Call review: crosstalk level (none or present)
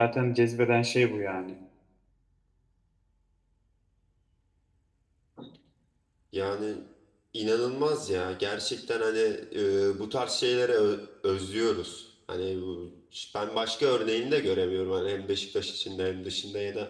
none